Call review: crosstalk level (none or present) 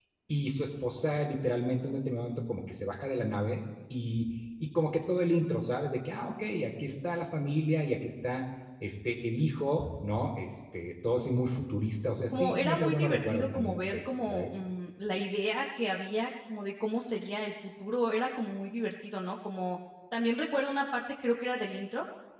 present